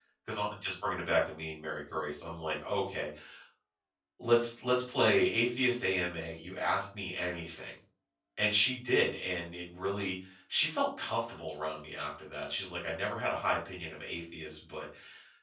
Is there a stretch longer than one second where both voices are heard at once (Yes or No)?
No